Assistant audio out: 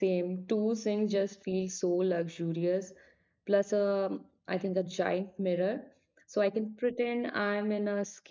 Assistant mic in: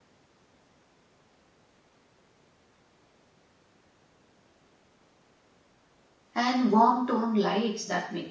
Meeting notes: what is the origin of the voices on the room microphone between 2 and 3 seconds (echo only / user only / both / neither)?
neither